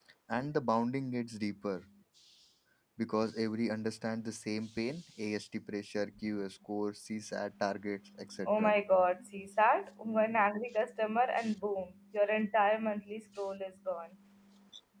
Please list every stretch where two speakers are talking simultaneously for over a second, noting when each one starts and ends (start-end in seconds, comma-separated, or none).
none